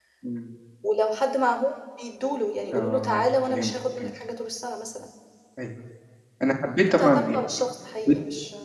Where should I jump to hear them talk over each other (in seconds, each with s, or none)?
2.7 s